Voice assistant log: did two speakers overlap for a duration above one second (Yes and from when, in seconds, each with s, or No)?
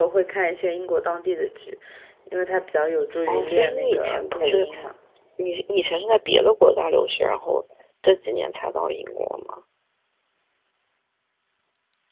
Yes, from 3.3 s